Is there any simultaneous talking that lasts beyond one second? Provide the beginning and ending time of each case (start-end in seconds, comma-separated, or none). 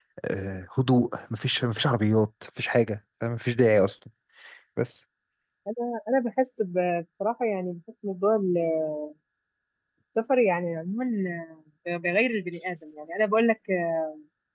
none